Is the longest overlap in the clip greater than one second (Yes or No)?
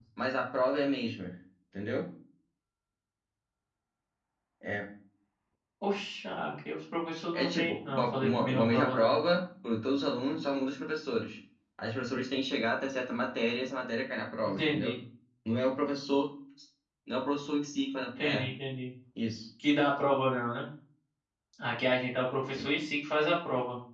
Yes